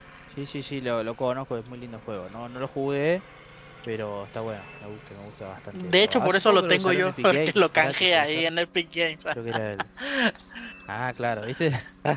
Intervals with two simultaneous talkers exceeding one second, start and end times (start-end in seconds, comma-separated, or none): 5.7-8.5